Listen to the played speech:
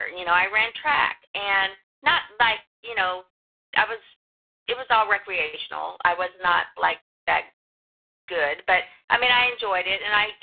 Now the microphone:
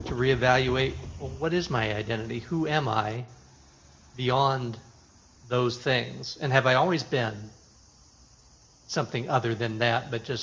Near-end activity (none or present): present